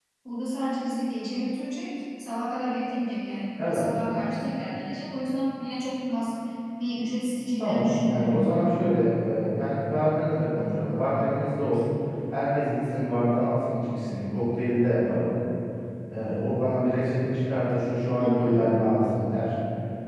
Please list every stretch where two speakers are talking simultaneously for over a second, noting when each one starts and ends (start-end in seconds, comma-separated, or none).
7.6-9.0